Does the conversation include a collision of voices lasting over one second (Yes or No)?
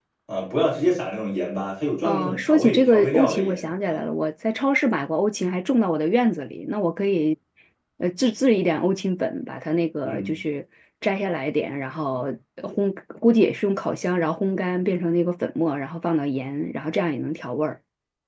Yes